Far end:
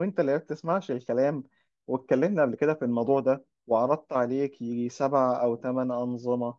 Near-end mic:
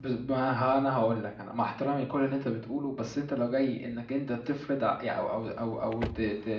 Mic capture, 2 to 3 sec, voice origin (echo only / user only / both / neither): user only